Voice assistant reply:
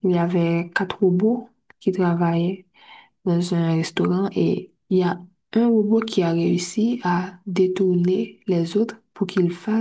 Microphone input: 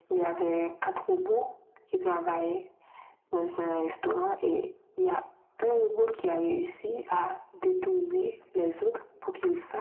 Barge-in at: none

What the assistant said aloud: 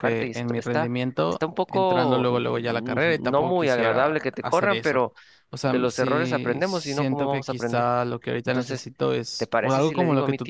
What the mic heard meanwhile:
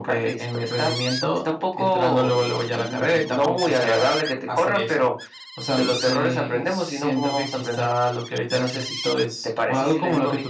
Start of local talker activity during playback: none

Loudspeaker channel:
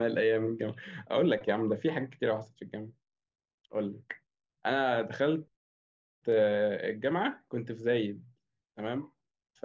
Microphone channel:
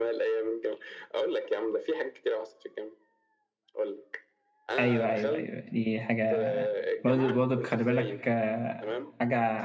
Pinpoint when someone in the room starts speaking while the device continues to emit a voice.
4.8 s

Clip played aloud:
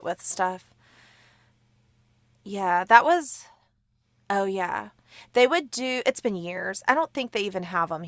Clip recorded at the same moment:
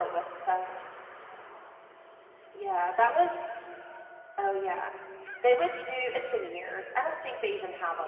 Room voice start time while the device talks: none

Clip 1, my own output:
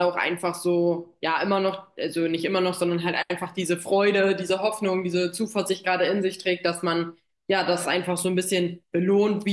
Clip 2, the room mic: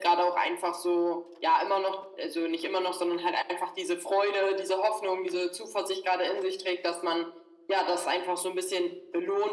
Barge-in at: none

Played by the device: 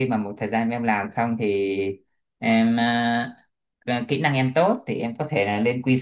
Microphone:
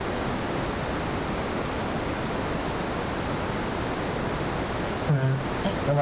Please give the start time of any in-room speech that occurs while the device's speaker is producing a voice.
5.1 s

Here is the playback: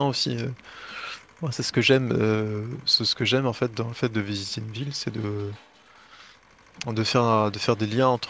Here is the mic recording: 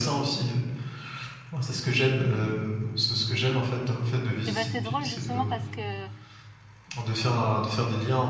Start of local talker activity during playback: 4.4 s

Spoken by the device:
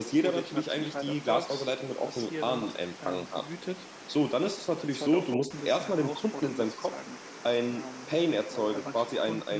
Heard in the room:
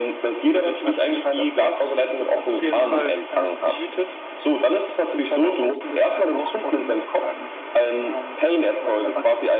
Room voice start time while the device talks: 2.4 s

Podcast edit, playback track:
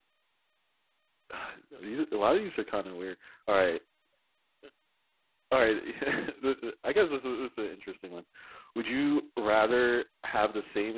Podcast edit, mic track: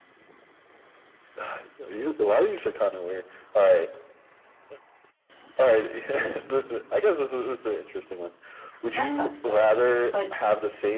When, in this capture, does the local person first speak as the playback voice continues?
8.9 s

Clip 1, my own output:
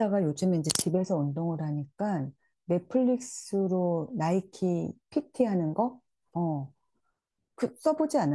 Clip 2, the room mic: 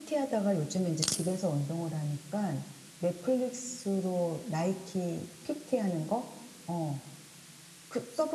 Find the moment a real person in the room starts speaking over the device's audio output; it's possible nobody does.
none

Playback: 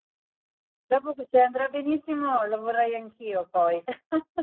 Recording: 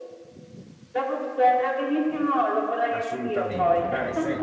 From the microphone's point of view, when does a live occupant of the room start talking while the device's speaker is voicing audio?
2.9 s

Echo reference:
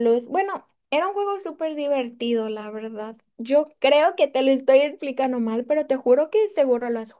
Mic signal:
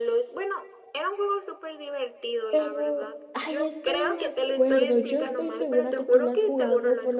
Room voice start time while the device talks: 2.5 s

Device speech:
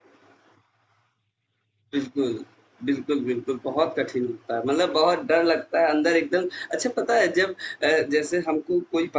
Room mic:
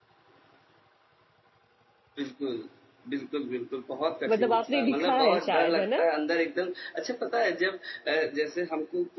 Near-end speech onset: 4.3 s

